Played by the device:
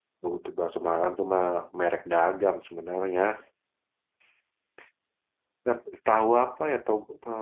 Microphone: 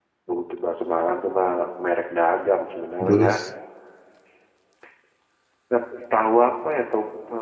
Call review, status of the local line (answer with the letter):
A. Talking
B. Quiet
A